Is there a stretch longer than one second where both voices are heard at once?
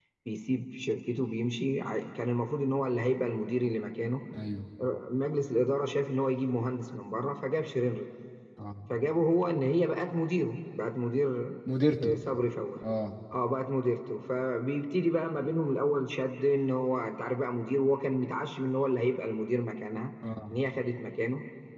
No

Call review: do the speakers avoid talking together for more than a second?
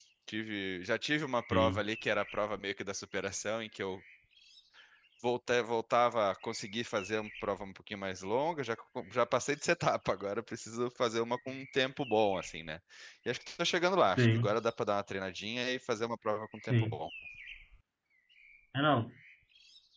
Yes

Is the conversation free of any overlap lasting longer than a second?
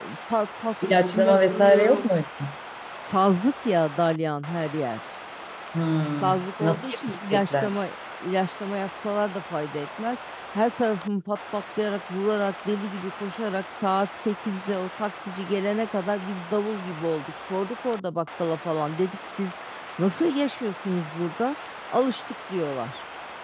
No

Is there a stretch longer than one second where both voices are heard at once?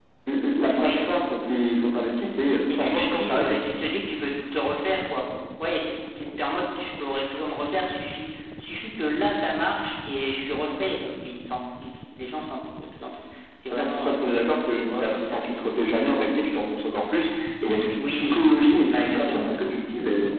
Yes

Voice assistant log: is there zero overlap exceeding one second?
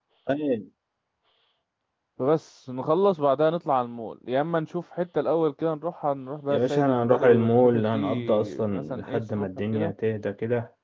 No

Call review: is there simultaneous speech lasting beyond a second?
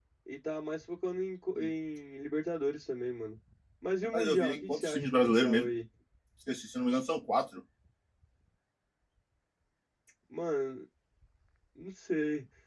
Yes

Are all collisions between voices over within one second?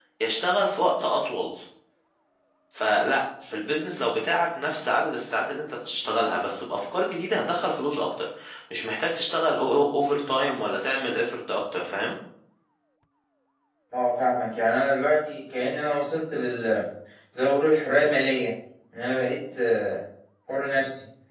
Yes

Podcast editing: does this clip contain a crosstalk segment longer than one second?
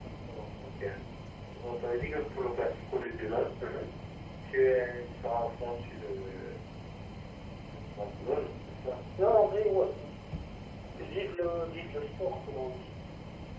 No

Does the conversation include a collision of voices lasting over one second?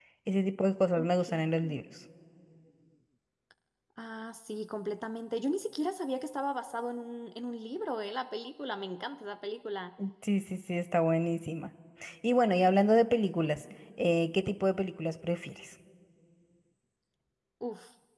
No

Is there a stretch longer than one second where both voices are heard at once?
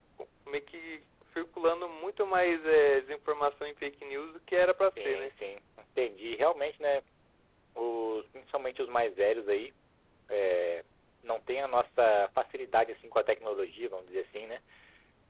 No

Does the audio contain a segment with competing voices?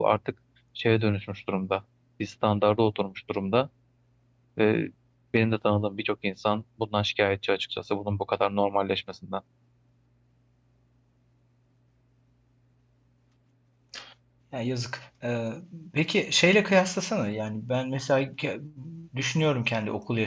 No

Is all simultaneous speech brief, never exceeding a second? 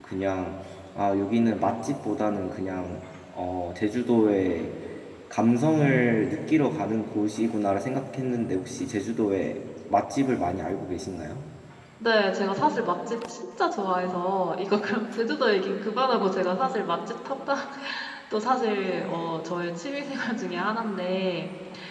Yes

